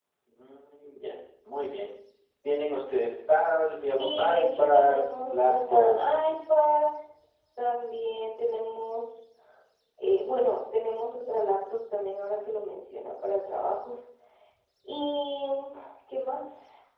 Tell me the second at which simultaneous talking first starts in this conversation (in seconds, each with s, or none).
4.0 s